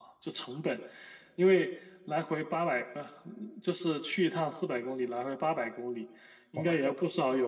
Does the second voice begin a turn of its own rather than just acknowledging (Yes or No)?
No